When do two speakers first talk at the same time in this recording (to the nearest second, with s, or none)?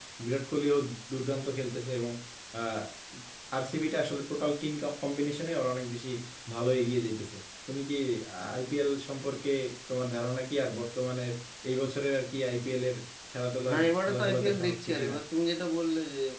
14 s